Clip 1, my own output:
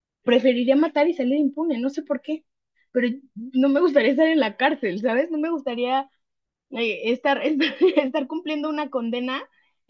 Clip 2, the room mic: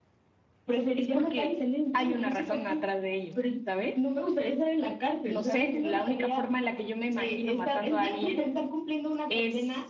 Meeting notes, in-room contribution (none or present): present